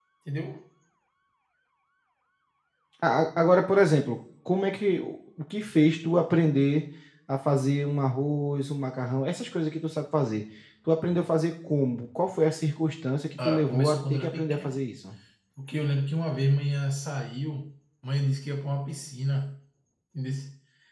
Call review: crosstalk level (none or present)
present